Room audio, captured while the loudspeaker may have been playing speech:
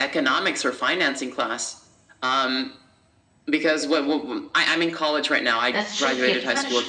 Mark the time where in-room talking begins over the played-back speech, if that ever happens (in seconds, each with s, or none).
5.7 s